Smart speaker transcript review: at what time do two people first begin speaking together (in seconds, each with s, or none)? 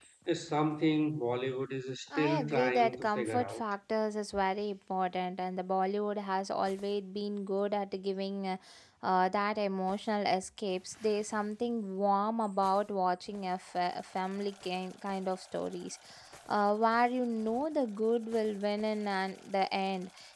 2.1 s